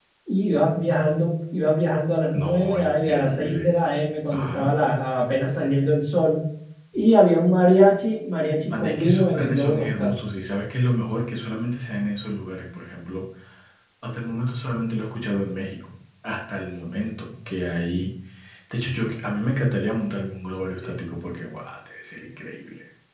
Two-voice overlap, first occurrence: 2.3 s

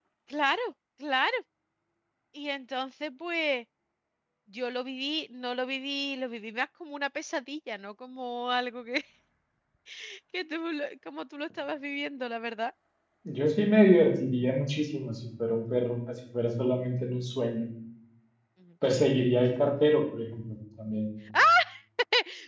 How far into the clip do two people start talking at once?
none

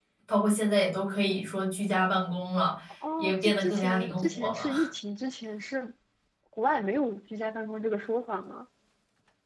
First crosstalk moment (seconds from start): 3.2 s

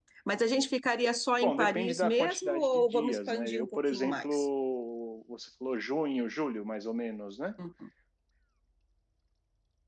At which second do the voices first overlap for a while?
1.4 s

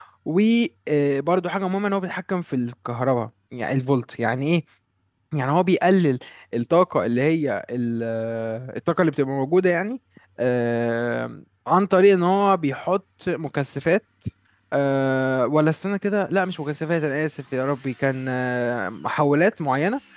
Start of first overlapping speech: none

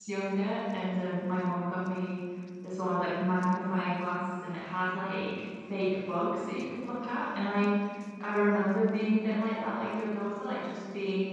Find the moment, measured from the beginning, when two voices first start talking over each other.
none

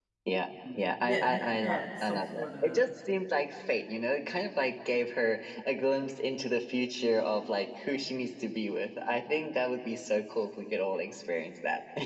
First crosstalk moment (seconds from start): 0.7 s

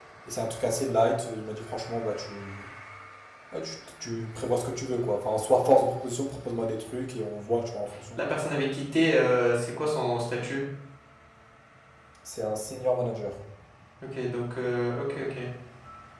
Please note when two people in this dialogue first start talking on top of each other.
none

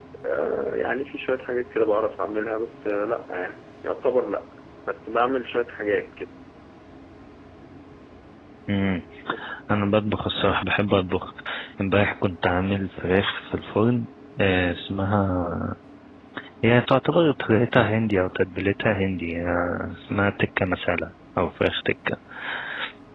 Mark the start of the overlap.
none

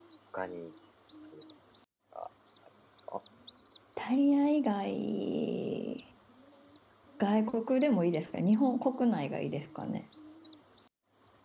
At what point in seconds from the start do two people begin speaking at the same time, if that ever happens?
none

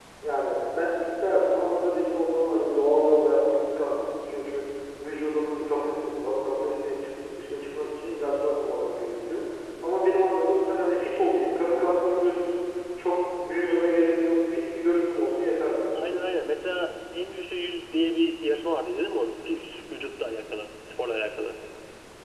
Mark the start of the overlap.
none

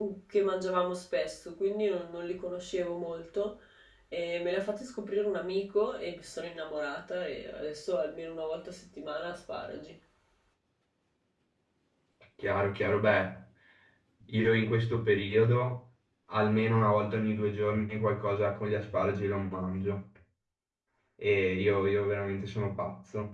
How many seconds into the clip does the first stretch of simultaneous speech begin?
none

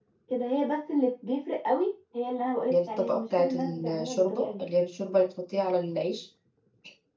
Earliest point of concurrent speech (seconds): 2.7 s

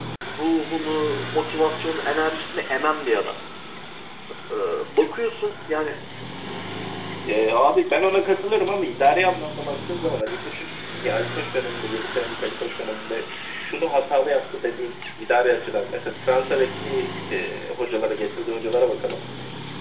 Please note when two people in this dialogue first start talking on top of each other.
none

